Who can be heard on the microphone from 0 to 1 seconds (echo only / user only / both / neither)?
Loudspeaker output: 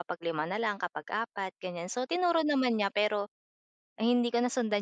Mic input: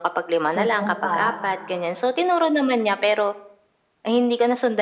both